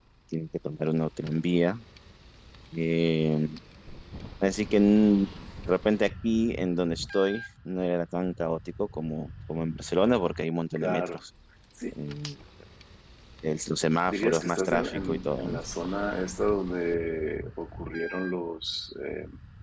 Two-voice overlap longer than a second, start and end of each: 14.1-15.6

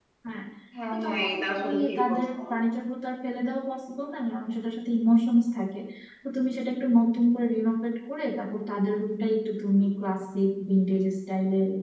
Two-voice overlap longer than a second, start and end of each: 0.9-2.4

